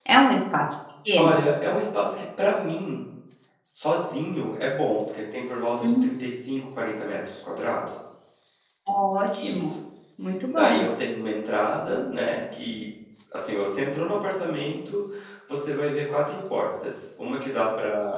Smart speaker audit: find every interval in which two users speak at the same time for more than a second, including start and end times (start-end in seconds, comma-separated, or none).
none